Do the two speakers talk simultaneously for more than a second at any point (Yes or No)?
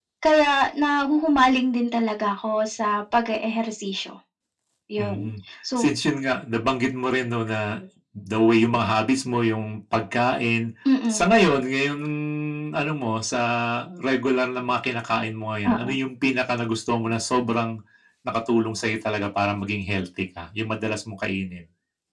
No